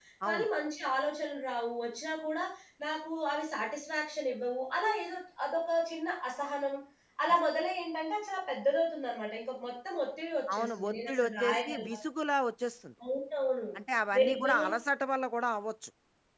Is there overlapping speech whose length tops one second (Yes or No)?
Yes